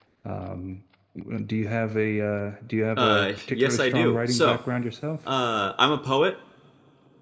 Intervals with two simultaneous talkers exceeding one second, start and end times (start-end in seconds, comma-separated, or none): 3.0-4.6